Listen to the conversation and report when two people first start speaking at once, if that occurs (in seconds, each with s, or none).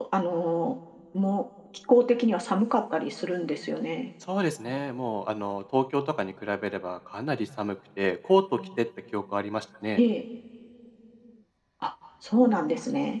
none